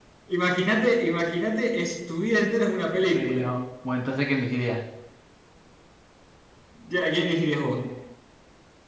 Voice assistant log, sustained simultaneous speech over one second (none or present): none